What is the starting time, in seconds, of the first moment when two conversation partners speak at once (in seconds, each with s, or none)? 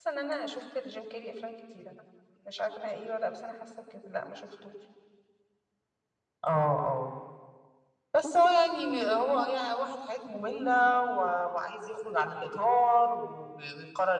none